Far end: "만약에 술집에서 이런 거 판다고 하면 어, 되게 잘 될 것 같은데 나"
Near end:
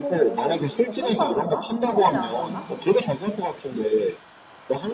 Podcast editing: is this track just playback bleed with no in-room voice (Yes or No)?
No